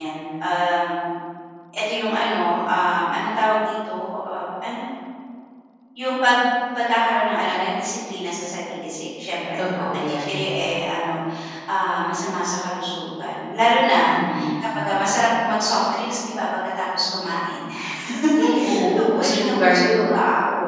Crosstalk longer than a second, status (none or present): present